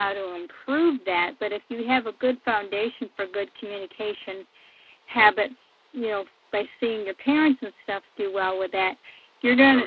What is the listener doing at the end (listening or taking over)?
listening